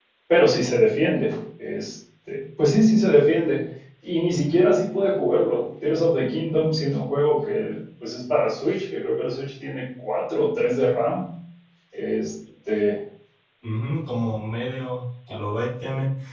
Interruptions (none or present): none